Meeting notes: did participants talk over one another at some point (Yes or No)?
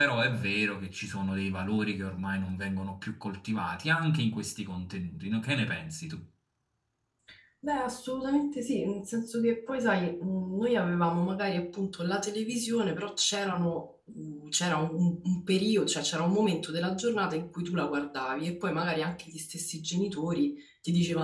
No